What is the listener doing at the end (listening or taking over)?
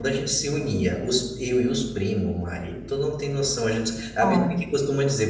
listening